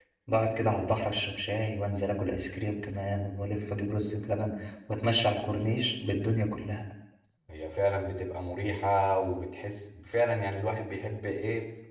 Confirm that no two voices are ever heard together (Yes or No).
Yes